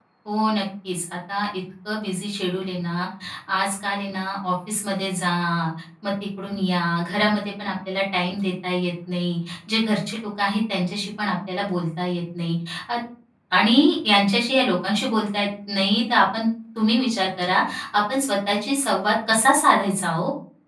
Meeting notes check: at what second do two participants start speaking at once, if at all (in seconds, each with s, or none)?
none